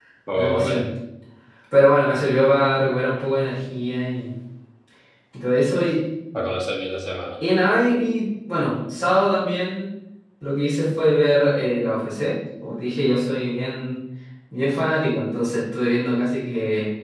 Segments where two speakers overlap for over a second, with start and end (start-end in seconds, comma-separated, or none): none